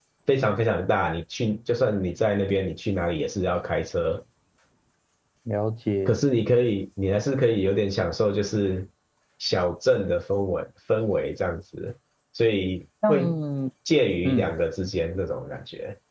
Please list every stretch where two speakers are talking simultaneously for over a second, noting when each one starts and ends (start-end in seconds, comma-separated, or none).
none